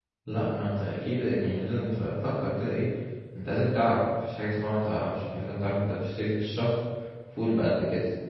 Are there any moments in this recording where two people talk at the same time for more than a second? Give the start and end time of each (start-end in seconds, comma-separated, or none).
none